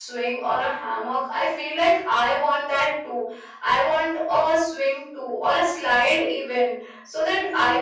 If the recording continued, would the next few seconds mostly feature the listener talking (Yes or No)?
No